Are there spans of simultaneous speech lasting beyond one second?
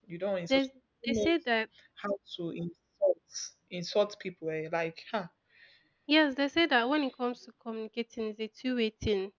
No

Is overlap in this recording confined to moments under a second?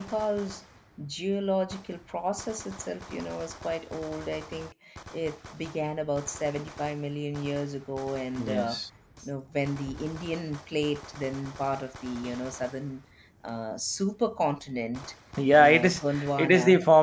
No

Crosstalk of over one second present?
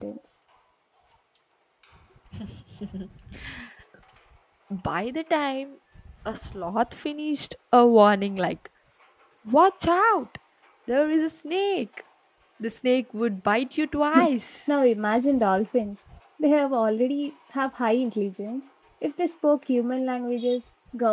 No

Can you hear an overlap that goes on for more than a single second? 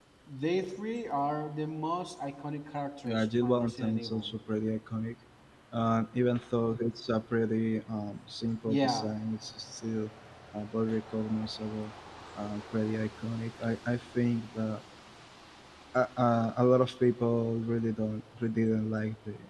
Yes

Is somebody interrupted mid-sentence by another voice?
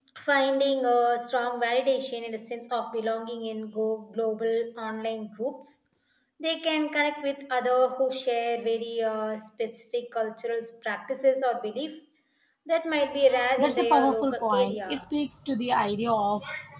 Yes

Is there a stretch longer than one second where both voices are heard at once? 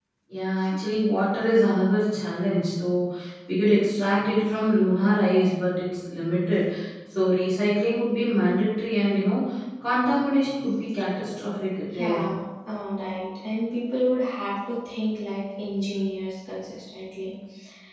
No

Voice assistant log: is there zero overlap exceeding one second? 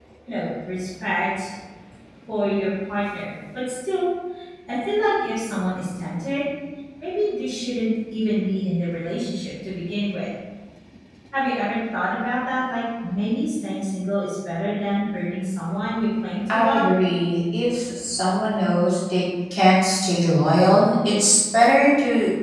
Yes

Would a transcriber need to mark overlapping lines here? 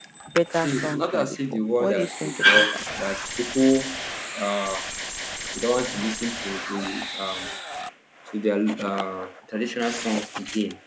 Yes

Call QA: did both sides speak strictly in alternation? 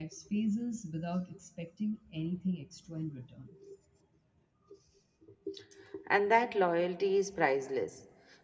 Yes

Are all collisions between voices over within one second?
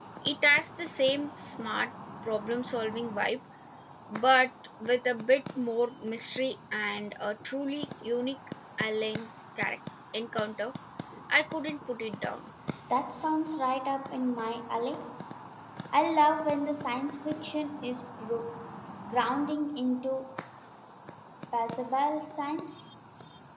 Yes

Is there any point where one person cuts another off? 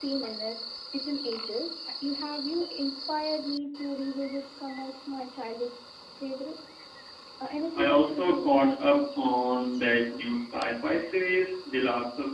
Yes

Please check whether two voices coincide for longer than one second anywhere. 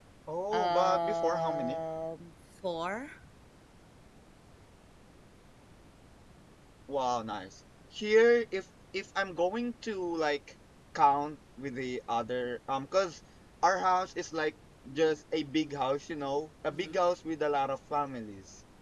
Yes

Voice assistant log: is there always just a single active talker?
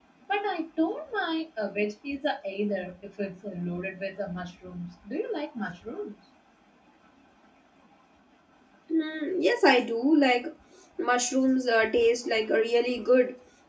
Yes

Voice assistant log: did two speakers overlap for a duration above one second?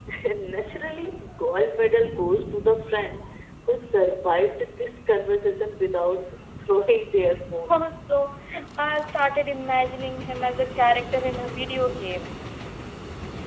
No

